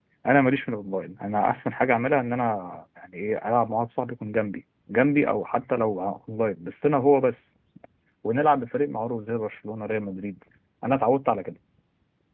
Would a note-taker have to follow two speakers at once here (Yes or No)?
No